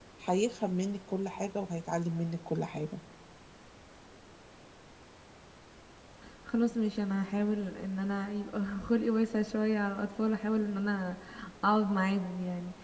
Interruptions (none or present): none